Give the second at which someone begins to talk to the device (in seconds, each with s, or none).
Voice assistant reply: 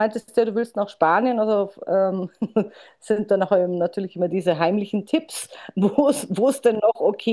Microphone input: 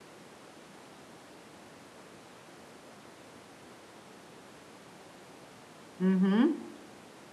6.0 s